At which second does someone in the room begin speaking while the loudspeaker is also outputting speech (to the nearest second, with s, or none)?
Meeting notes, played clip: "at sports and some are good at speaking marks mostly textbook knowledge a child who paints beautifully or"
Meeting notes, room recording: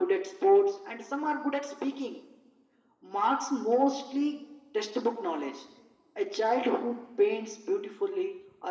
none